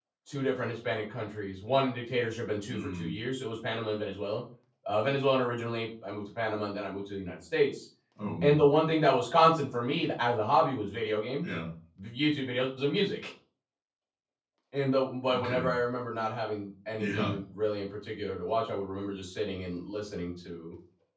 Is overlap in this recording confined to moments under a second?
Yes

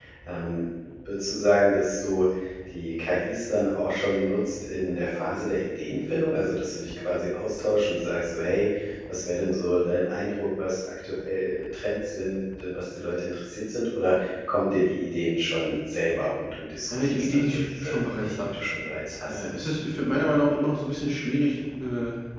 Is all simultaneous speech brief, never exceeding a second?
No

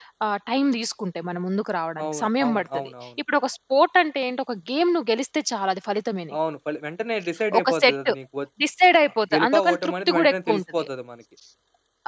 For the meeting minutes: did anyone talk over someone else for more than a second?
Yes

